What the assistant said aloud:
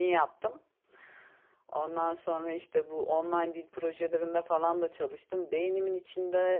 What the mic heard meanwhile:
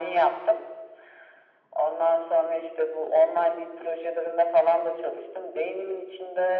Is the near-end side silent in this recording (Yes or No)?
Yes